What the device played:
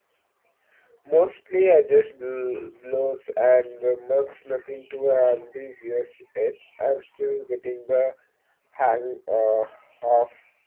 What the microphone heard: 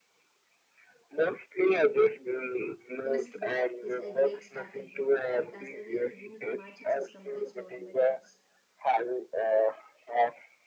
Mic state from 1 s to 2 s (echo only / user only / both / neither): echo only